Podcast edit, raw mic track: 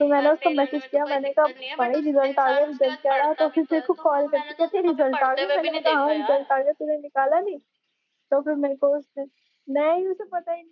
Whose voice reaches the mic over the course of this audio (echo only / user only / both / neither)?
both